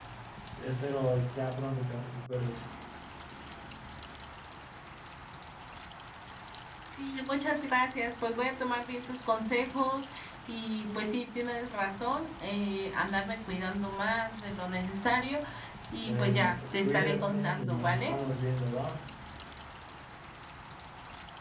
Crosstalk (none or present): present